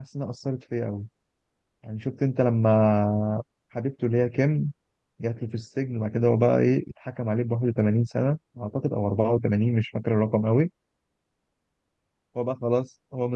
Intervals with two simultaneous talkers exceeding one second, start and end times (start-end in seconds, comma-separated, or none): none